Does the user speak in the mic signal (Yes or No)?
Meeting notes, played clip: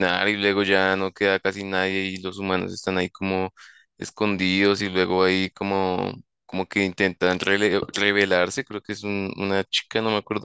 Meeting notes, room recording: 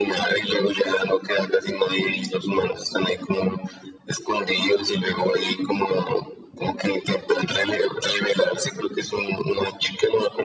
No